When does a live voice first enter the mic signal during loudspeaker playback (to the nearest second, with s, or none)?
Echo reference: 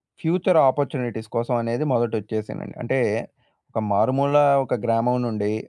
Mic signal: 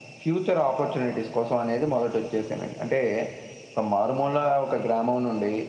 none